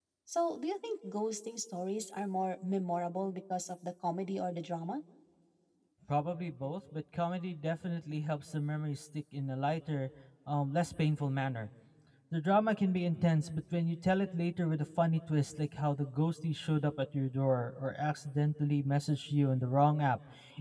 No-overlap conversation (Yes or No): Yes